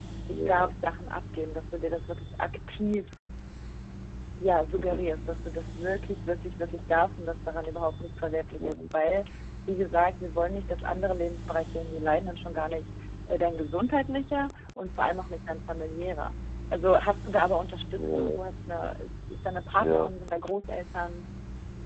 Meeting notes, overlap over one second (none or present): none